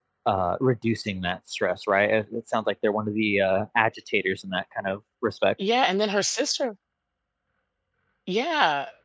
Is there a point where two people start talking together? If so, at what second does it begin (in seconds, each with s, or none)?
none